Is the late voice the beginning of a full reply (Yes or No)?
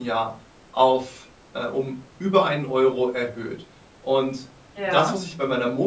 No